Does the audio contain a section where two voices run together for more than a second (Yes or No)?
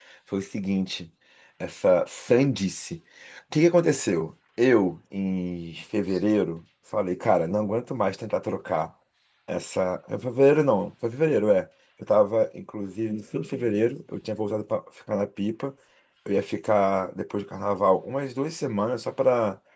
No